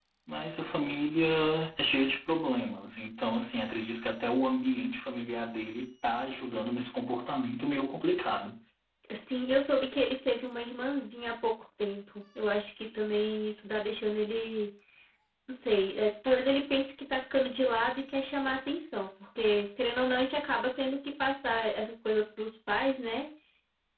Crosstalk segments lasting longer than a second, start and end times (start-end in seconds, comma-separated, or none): none